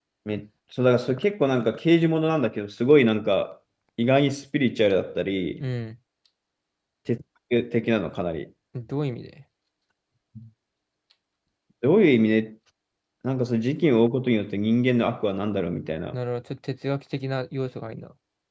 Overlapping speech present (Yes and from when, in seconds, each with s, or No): No